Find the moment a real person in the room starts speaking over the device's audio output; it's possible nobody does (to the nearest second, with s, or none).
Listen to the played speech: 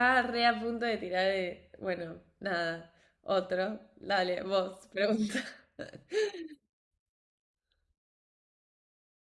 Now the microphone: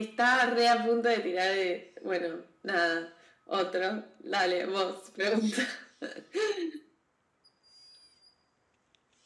none